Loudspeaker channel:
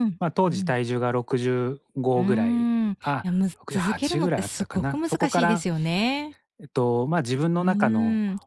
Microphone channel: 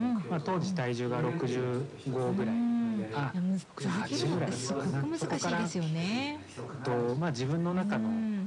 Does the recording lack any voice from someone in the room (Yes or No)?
No